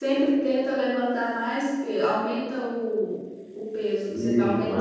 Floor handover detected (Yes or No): Yes